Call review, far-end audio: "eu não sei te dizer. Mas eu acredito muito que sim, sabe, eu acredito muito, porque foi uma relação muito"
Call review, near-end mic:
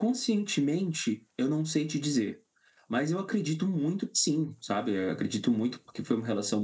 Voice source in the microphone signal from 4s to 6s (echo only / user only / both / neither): echo only